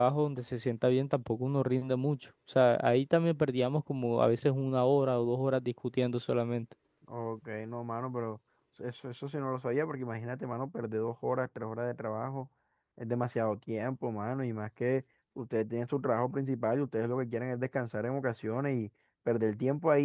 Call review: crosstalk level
none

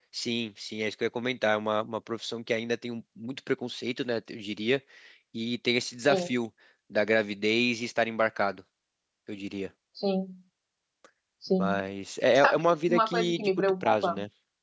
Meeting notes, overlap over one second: present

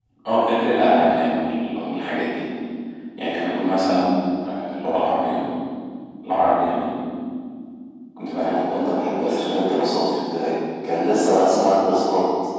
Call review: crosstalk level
present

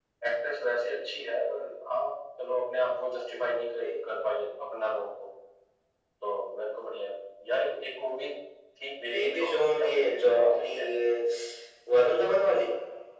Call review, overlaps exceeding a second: present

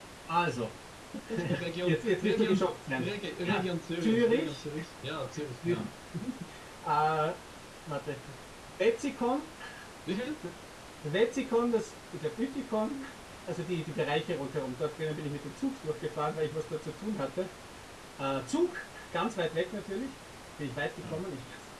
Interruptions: present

